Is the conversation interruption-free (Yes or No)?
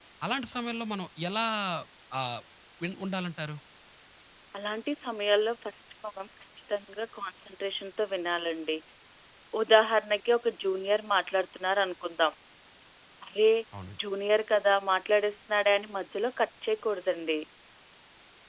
Yes